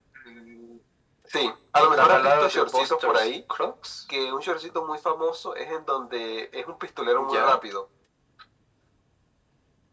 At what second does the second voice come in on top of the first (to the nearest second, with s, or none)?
2 s